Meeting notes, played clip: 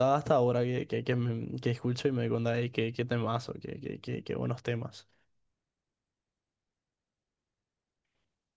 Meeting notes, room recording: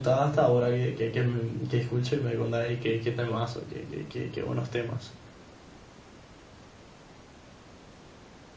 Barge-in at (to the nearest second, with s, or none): none